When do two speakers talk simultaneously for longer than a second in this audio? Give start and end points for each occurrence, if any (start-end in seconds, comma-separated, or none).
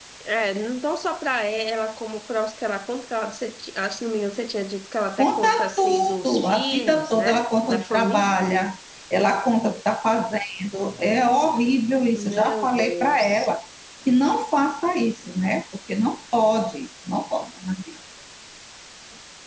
5.2-8.3, 12.1-13.5